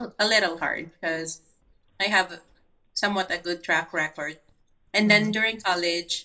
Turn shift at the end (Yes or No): No